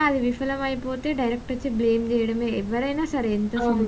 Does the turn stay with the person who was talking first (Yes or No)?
No